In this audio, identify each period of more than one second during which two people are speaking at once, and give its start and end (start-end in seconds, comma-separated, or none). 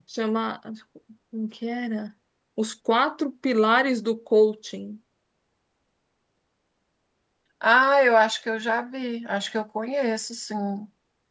none